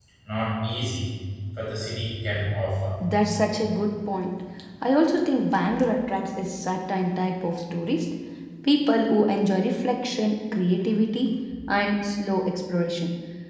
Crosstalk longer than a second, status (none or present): none